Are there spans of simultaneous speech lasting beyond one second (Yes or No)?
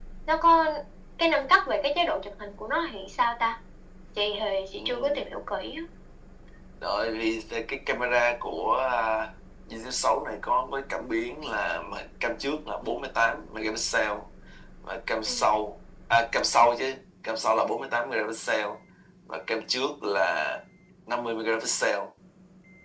No